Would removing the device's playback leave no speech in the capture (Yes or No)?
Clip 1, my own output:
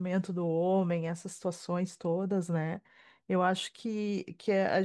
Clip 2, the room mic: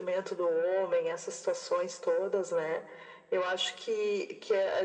Yes